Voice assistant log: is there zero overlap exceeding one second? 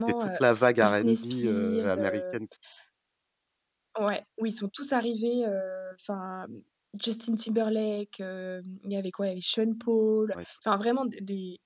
No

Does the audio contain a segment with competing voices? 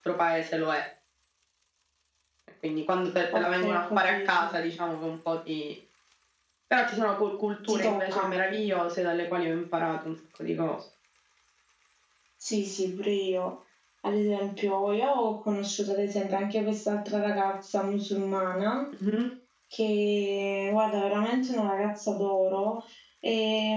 Yes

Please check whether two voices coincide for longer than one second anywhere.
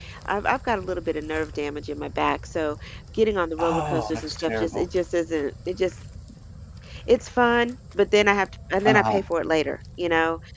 Yes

